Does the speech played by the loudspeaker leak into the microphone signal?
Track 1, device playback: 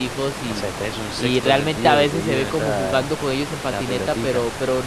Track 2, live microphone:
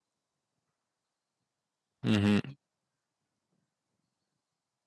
No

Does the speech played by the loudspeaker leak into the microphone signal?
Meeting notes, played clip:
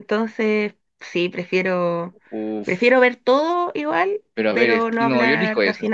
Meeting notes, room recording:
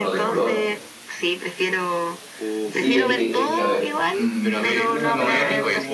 Yes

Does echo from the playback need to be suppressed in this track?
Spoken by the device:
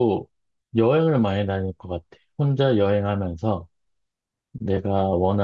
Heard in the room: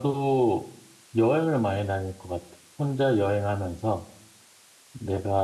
Yes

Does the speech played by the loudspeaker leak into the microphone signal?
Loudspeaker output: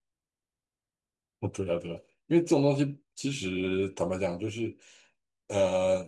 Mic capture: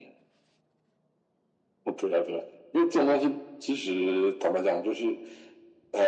Yes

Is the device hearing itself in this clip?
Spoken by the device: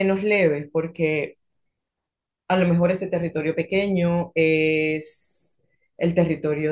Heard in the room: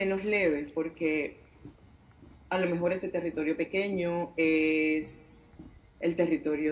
Yes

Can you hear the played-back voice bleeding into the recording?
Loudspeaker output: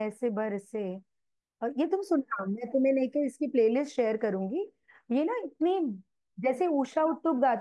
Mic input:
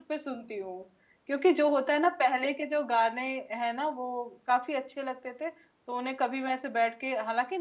No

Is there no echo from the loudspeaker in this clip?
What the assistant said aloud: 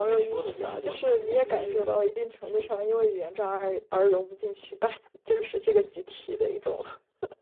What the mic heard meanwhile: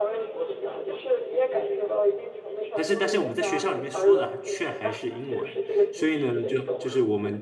No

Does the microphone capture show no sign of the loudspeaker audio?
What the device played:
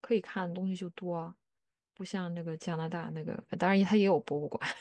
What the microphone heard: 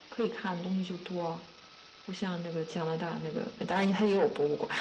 No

